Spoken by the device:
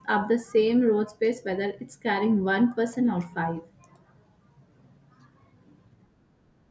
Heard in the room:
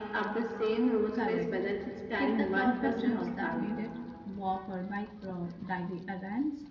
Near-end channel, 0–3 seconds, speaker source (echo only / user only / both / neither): both